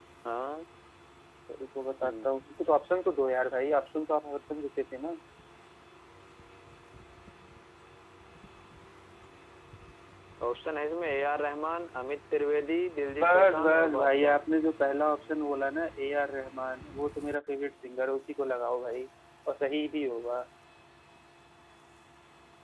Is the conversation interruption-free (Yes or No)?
No